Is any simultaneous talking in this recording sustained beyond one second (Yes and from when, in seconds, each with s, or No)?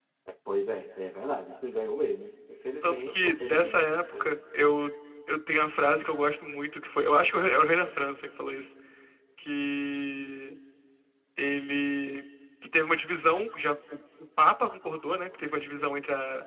Yes, from 2.8 s